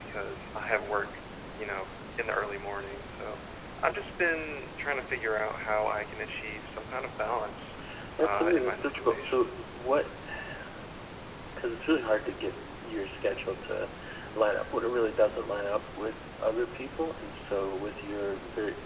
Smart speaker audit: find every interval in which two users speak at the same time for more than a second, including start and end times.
8.2-9.5

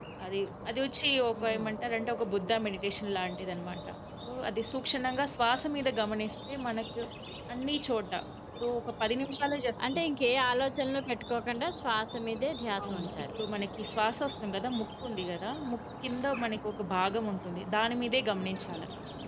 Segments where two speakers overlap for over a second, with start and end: none

